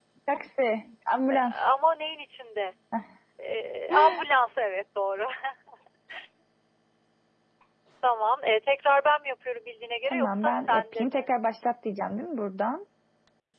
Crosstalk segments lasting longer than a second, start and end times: 10.0-11.3

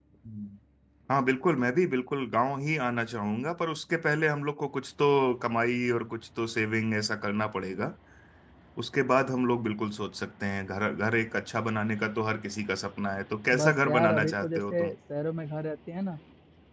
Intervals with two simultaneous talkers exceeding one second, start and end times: 13.5-14.9

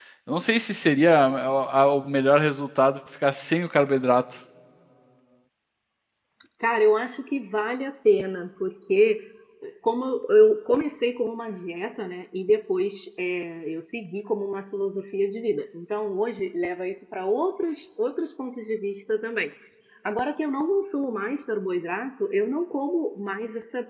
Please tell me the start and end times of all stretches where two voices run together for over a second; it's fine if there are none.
none

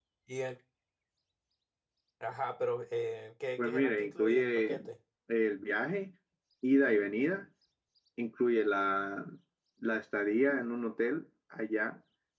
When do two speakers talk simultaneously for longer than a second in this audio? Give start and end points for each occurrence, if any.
3.6-4.8

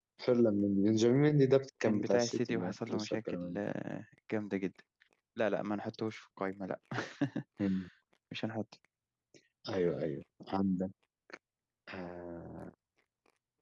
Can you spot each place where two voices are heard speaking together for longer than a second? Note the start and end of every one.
1.8-3.6

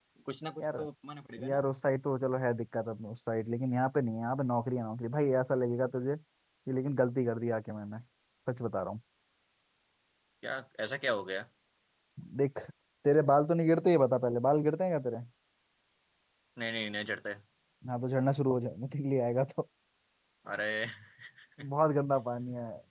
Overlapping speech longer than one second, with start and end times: none

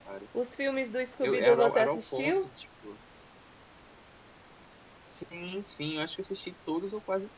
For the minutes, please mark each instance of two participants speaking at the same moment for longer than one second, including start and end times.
1.2-2.5

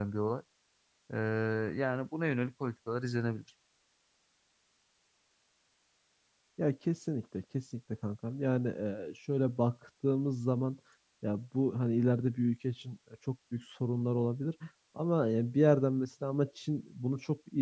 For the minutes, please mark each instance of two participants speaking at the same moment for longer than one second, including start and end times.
none

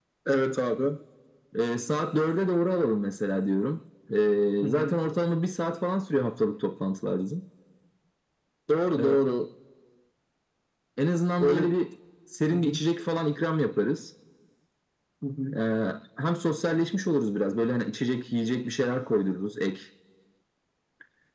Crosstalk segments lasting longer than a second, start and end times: none

